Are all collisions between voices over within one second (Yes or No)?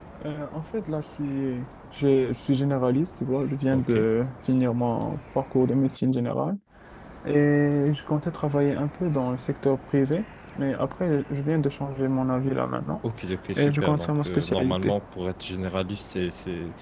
No